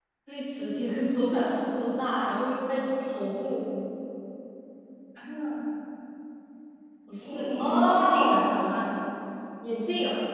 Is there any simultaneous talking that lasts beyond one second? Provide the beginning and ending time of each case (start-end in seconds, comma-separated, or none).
7.2-8.4